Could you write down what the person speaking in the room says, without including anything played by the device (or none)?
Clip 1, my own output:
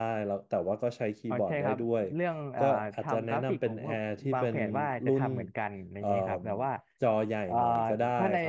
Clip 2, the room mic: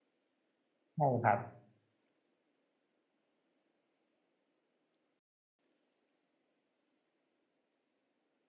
่ครับ